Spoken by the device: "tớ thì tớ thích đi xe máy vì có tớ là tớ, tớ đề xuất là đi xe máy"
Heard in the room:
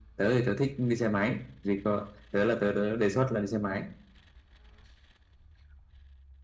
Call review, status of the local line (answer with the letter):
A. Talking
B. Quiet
B